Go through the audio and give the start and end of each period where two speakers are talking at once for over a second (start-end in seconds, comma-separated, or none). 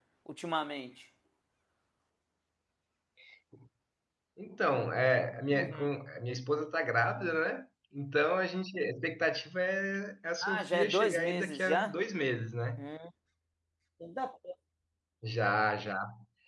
10.4-11.9